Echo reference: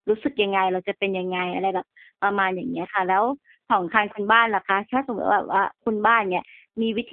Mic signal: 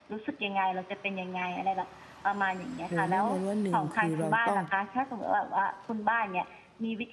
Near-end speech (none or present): present